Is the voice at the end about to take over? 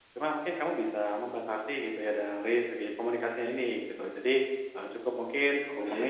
No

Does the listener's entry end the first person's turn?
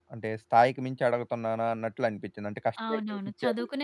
Yes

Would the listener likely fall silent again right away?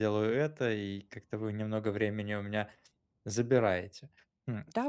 No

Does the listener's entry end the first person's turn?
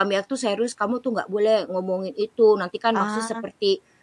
No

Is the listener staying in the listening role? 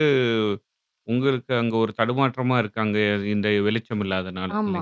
No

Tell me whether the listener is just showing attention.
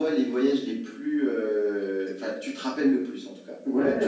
No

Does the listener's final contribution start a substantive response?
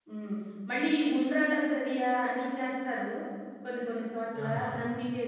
No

